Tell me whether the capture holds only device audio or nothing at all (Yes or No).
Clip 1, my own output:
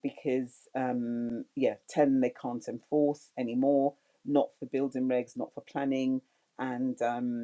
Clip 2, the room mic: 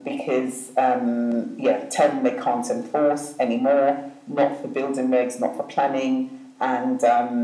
Yes